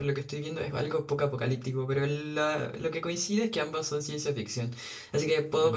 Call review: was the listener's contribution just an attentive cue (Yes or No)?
Yes